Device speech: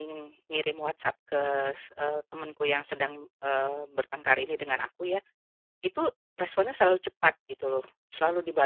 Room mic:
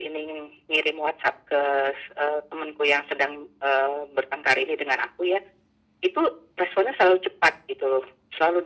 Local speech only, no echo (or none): none